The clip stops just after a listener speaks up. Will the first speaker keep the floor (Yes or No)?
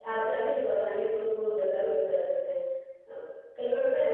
Yes